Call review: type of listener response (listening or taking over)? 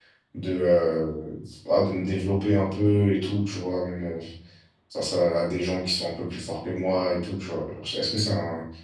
listening